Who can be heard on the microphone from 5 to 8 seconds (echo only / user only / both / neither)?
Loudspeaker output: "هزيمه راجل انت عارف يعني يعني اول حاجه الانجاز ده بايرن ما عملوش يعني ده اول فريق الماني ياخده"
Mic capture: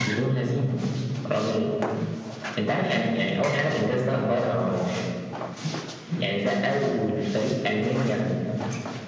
echo only